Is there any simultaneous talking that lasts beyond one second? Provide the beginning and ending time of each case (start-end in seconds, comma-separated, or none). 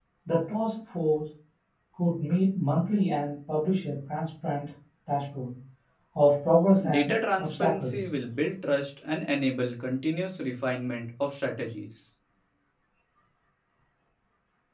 6.9-8.1